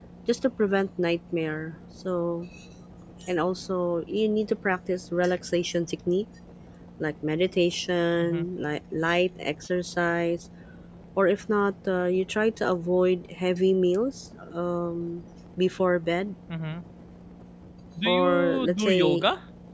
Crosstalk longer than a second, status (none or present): present